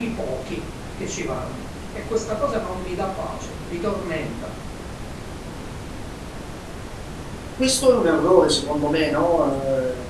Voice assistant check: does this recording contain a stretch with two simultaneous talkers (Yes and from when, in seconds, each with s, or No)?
No